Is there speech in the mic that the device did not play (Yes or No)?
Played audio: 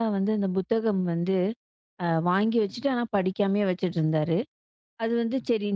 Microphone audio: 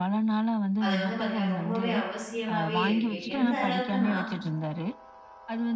Yes